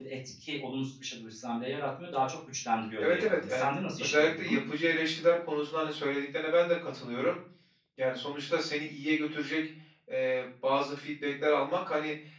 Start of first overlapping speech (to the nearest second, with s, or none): 3 s